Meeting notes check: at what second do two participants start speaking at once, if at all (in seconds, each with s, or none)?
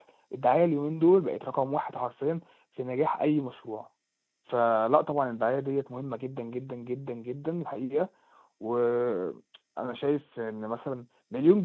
none